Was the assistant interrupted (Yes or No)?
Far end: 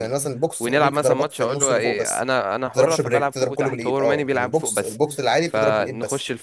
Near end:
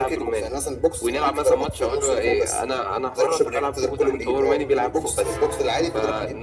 No